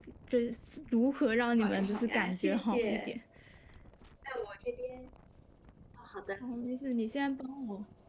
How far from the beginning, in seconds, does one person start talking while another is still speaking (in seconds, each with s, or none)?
1.6 s